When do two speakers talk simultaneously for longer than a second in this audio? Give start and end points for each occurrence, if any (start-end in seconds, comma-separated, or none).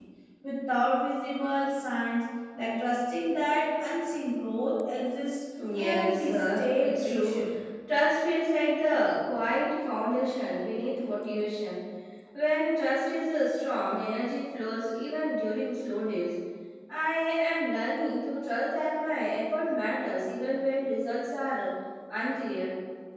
5.8-7.4